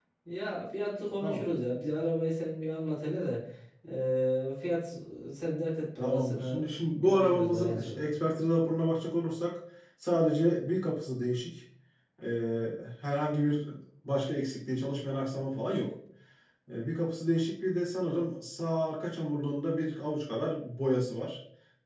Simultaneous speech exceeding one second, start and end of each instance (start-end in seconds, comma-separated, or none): 6.0-8.0